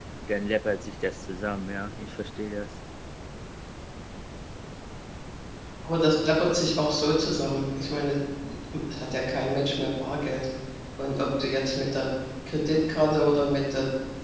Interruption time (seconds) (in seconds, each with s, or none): none